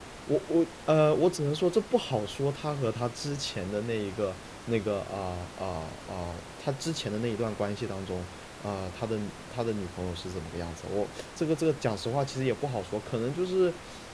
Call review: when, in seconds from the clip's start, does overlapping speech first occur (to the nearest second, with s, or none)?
none